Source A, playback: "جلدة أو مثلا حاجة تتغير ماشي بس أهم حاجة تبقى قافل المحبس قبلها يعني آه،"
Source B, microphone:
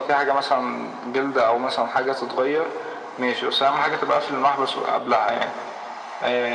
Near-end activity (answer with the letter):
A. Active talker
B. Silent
B